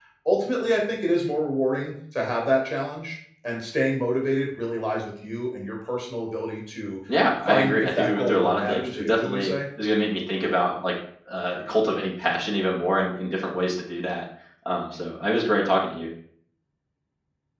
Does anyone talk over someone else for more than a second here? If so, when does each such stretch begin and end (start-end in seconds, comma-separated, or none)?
7.5-9.5